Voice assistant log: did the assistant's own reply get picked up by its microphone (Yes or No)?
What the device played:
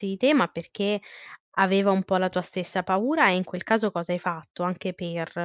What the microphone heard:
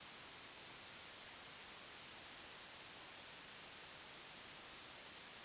No